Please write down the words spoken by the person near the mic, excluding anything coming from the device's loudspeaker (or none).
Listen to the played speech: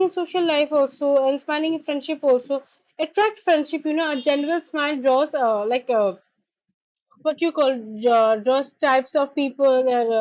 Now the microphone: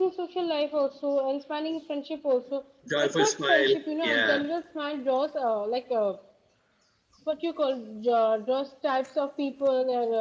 joyful smile yeah